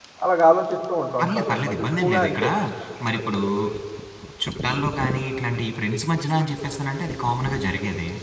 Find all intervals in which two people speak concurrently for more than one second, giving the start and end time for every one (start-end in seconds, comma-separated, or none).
1.2-2.5